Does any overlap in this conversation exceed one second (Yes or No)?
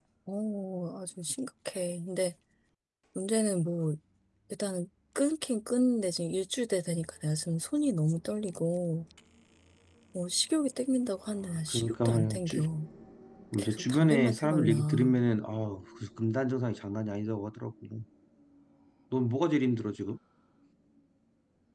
Yes